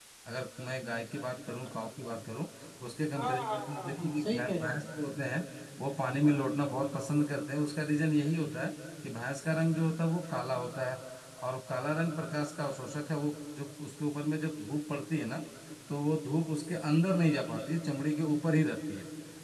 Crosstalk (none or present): present